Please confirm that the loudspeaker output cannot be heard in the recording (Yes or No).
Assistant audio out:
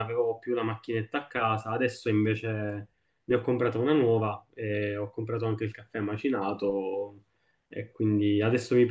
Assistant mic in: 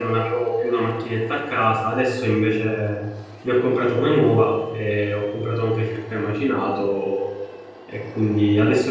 No